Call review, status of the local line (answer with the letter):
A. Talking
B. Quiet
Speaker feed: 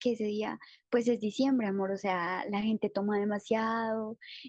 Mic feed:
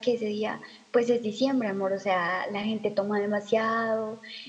B